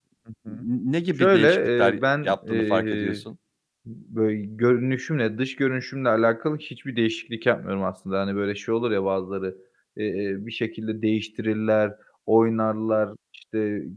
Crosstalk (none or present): present